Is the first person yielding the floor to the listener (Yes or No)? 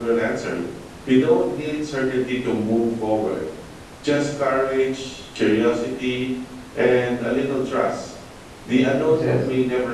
No